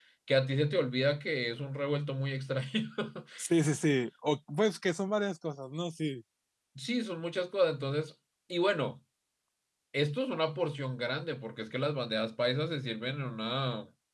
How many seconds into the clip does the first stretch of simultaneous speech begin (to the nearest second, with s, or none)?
none